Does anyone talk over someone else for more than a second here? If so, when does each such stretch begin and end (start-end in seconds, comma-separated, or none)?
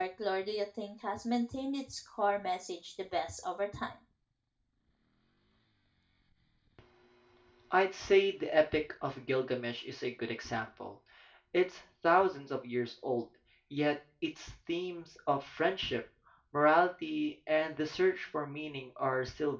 none